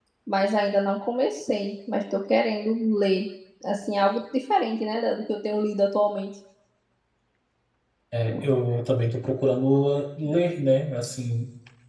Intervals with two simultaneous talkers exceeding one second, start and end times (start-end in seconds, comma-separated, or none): none